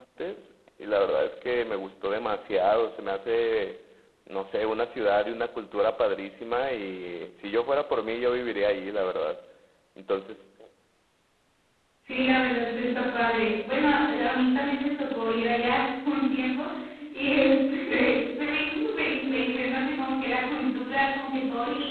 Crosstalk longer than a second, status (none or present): none